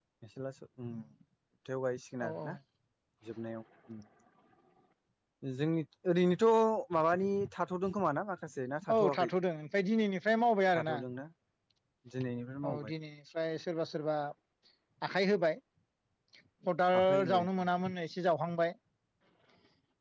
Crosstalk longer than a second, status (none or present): none